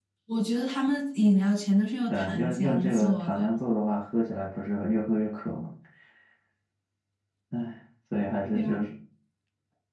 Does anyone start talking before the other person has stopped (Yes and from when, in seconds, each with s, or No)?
Yes, from 2.1 s